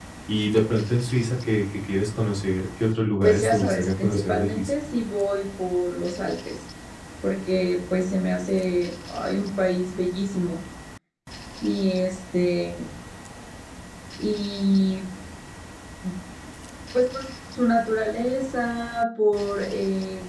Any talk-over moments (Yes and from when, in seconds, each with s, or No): Yes, from 3.2 s